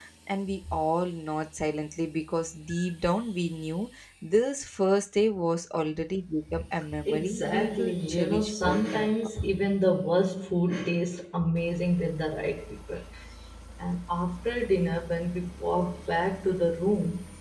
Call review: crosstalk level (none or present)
present